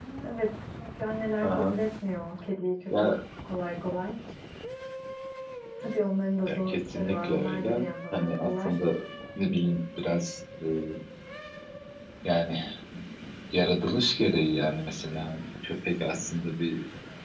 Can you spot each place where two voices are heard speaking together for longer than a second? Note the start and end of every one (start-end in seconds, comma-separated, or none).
6.5-8.7